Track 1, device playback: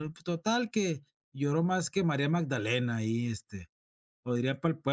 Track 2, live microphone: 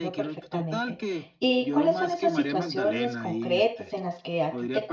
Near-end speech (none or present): present